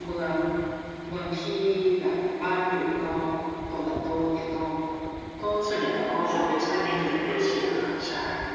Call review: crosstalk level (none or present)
present